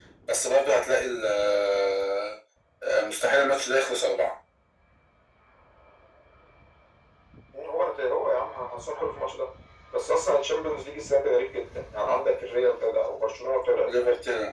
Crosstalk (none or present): none